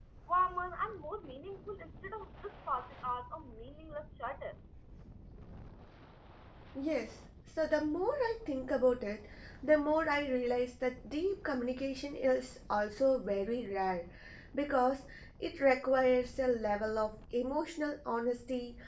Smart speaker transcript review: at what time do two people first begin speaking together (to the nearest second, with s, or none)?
none